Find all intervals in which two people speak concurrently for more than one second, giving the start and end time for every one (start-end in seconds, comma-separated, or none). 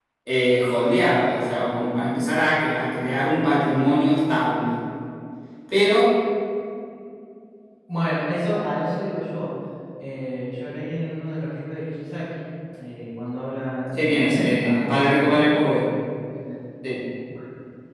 14.0-15.6